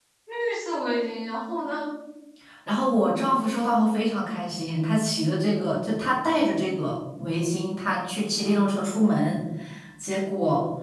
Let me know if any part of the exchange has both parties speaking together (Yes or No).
No